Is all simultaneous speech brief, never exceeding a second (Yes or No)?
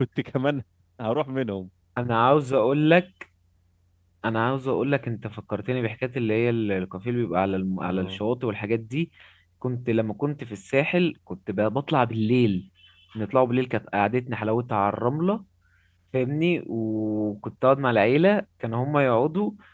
Yes